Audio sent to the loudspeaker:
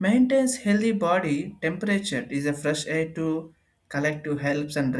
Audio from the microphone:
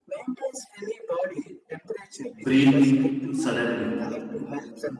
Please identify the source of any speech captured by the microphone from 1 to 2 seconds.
echo only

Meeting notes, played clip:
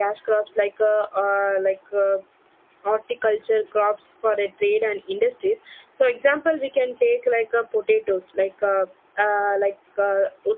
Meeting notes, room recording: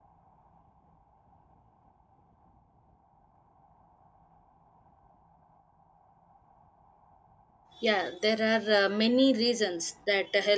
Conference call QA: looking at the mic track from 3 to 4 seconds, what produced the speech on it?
neither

